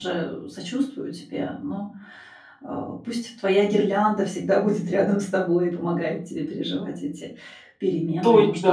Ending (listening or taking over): taking over